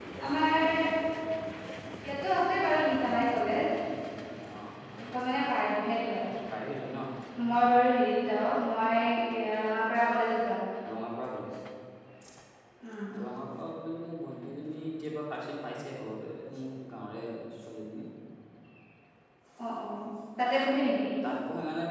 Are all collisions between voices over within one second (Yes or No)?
Yes